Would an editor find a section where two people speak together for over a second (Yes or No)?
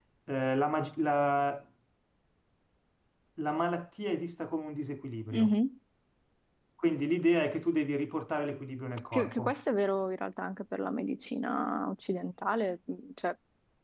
No